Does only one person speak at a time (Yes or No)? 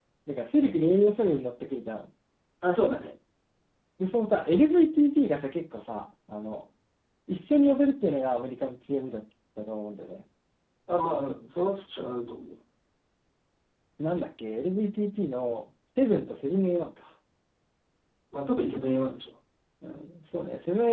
Yes